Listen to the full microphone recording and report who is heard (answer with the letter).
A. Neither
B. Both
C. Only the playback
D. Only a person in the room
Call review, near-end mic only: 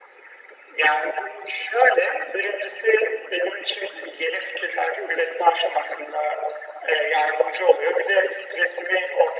C